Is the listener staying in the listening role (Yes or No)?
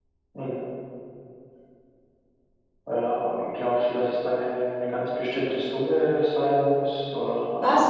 No